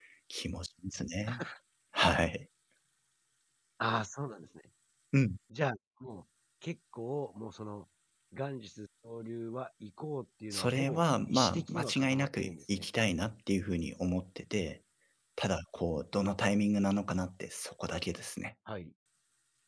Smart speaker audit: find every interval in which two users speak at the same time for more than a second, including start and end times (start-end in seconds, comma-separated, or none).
10.5-12.9